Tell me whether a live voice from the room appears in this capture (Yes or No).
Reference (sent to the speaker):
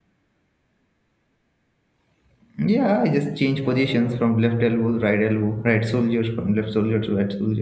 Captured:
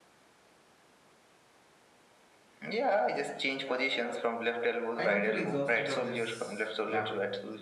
Yes